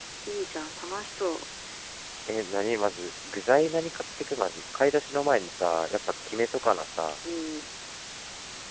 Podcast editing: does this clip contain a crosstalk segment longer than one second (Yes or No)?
No